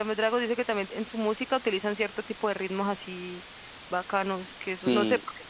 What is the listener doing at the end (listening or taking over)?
listening